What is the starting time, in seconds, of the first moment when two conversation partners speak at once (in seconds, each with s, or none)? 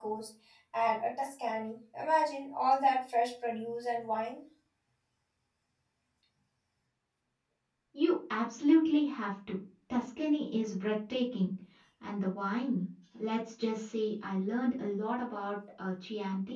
none